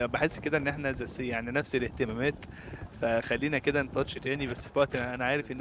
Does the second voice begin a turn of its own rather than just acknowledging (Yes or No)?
No